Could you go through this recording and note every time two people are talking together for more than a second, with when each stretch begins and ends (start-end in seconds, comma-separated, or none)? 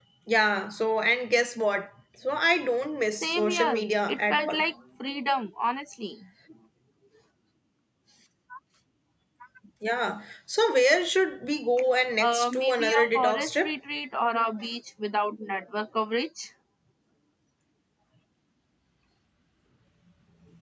3.2-4.6, 12.2-13.7